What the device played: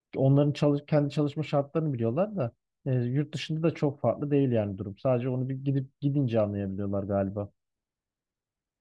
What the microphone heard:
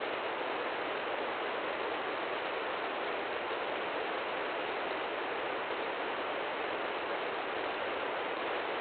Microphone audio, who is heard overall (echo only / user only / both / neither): neither